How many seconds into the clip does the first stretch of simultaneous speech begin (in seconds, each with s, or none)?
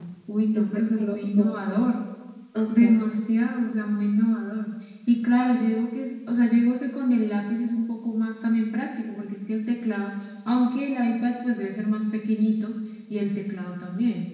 0.5 s